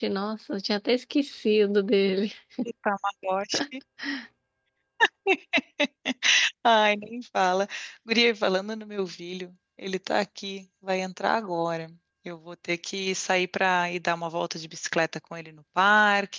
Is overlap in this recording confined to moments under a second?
Yes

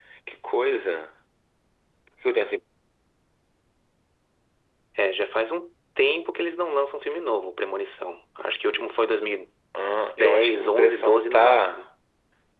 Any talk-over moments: Yes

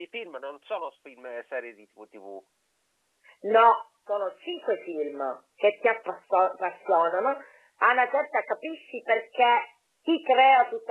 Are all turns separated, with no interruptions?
Yes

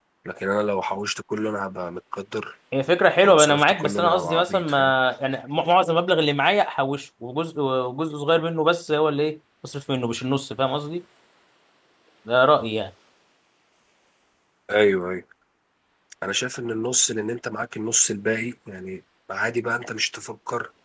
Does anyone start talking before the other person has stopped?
Yes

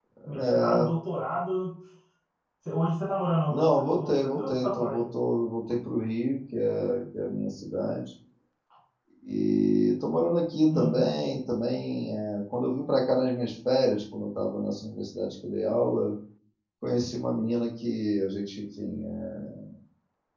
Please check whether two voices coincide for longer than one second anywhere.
Yes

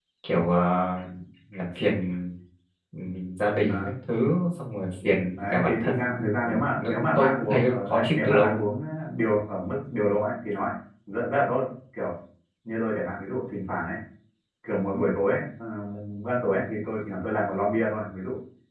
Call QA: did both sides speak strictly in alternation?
No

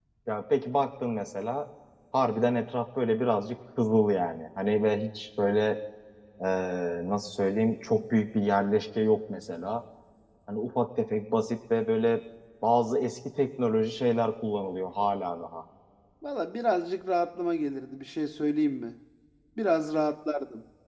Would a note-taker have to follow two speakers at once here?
No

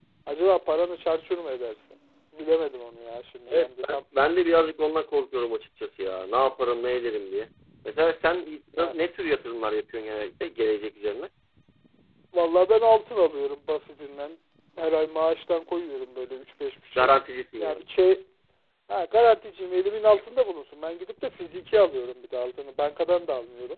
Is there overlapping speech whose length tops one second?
No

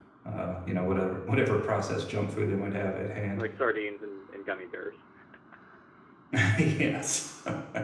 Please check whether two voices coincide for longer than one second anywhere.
No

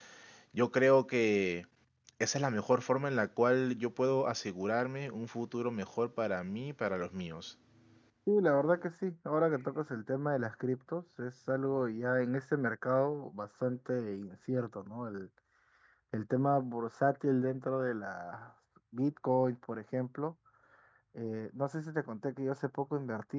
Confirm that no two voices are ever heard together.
Yes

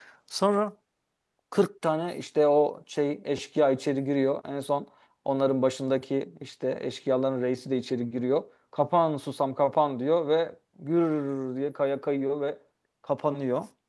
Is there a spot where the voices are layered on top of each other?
No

